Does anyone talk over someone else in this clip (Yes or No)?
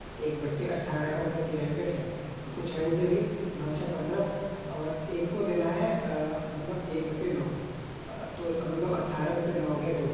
No